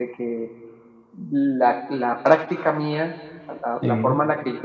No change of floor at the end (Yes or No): Yes